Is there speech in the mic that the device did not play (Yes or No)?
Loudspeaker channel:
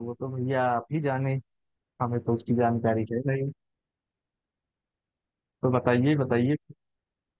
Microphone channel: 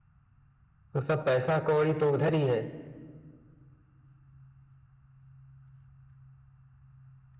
Yes